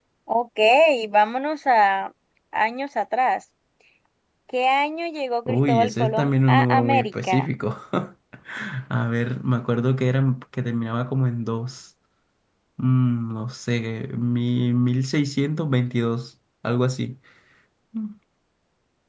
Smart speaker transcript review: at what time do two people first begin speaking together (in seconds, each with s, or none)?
5.5 s